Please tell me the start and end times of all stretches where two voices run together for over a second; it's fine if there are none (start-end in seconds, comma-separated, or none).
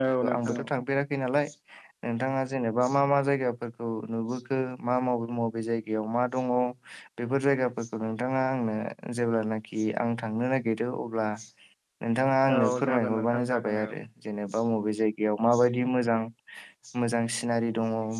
12.6-13.9